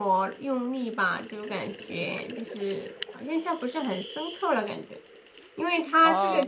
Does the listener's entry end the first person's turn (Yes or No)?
No